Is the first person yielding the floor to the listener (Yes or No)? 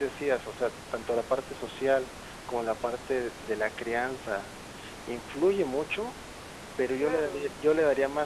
No